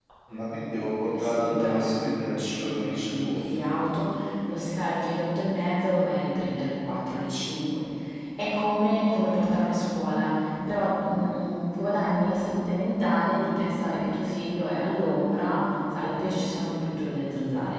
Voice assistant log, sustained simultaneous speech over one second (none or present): present